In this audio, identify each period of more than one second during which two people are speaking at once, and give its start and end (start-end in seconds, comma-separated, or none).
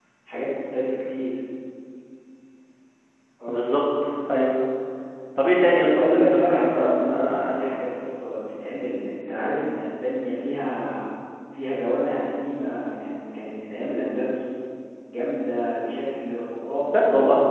5.7-7.4